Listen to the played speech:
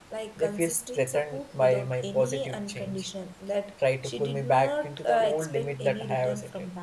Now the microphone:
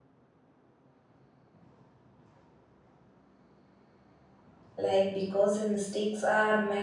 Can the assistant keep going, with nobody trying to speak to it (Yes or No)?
No